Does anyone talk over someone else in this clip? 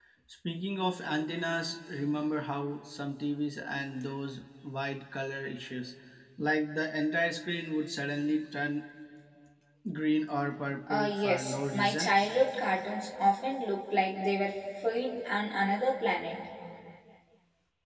Yes, from 10.9 s

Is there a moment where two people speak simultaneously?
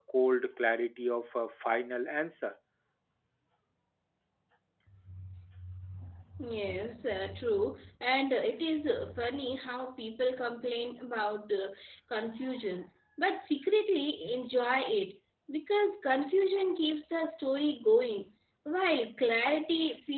No

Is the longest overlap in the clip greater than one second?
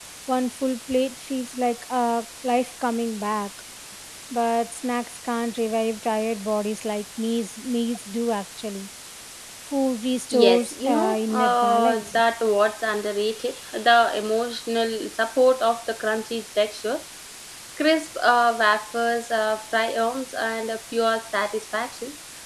Yes, from 10.3 s

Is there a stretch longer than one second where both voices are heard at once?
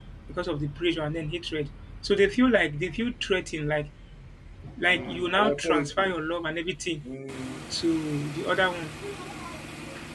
Yes, from 4.9 s

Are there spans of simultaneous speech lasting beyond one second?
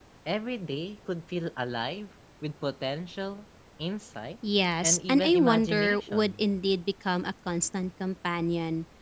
Yes, from 4.8 s

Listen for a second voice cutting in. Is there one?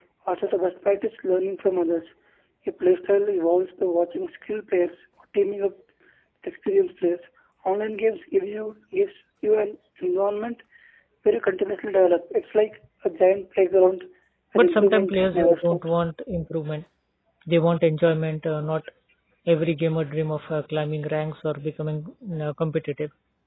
Yes, from 14.6 s

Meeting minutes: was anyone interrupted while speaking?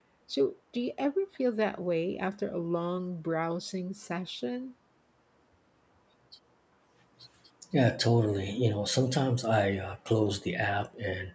No

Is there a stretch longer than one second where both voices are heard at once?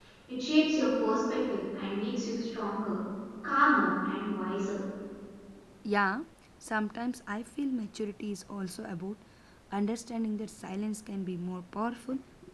No

